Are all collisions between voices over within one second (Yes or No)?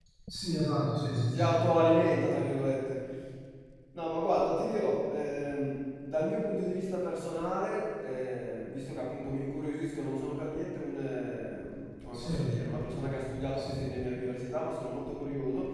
Yes